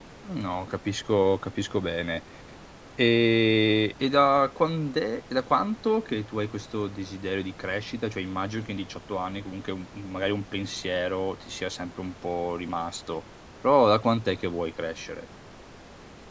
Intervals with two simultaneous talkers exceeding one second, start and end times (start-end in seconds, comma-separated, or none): none